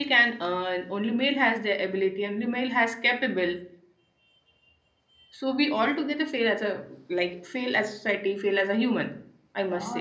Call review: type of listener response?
taking over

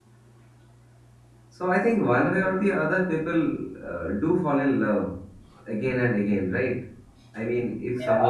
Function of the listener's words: taking over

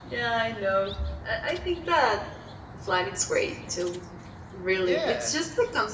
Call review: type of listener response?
listening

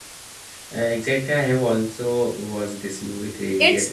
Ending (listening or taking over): taking over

